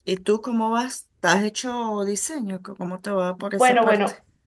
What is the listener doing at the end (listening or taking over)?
taking over